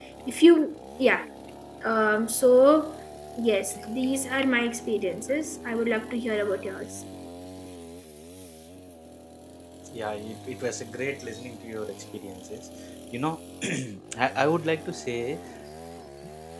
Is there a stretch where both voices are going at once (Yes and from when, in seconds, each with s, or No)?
No